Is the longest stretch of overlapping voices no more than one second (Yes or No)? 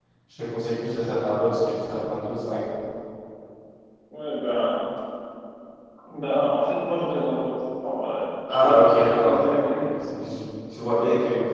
No